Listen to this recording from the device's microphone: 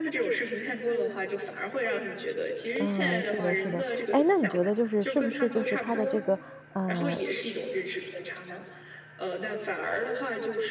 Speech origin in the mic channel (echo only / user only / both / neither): both